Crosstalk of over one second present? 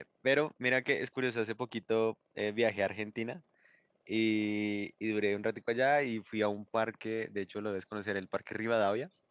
No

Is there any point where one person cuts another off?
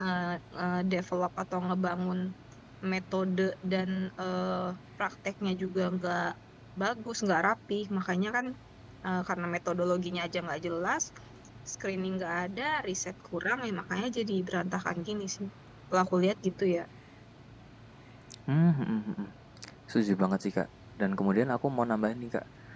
No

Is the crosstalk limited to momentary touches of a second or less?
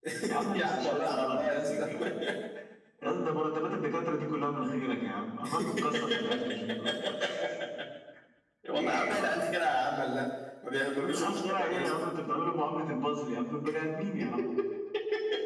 No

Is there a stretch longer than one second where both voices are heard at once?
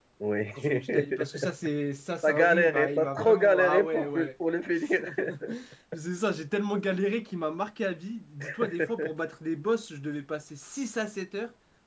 Yes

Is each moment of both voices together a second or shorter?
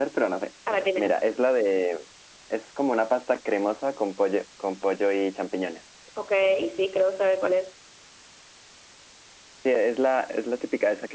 Yes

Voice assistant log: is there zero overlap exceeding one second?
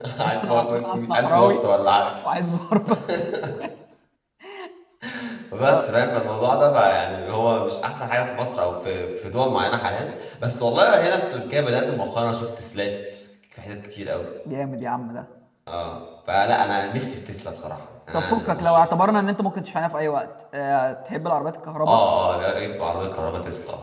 No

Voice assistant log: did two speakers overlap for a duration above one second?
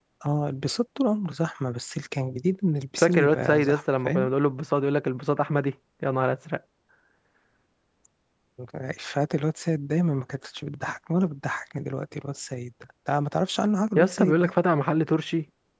Yes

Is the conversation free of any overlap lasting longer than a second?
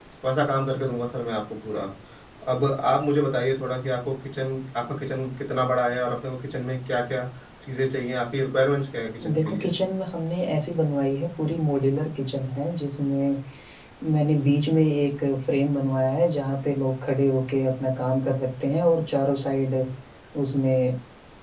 Yes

